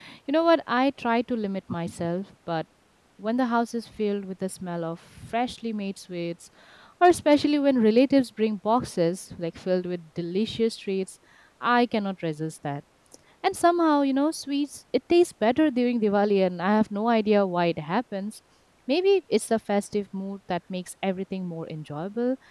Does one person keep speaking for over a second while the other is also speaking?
No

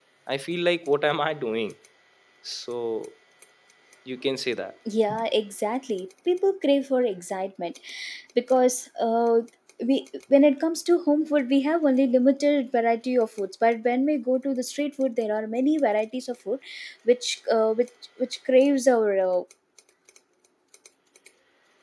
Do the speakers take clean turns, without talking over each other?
Yes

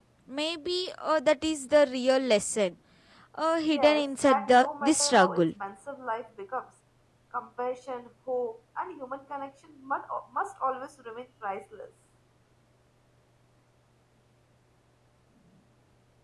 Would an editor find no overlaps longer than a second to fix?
No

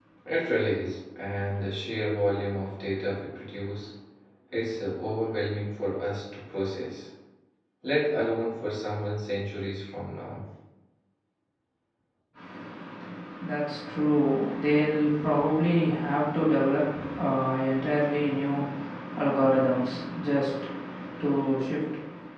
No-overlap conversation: Yes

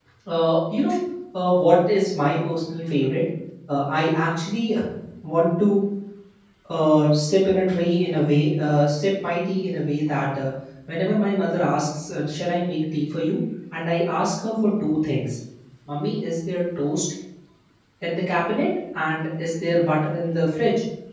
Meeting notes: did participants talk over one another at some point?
No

